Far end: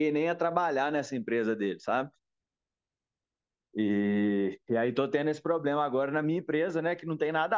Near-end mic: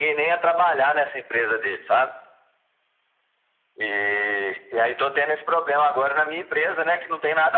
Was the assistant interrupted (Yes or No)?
No